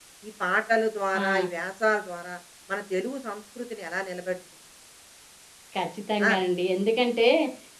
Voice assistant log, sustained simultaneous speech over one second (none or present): none